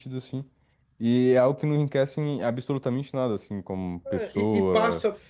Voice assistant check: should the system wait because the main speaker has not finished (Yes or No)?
No